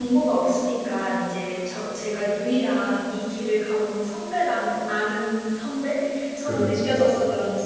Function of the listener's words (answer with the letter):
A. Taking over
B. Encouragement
B